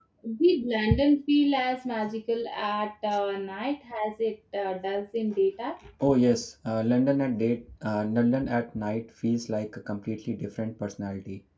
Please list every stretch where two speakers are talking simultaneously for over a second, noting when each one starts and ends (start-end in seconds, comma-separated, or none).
none